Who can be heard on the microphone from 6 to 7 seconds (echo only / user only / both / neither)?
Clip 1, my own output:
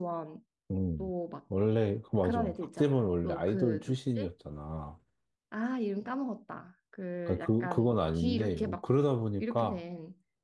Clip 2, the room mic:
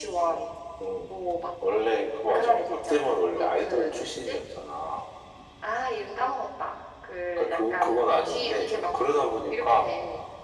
echo only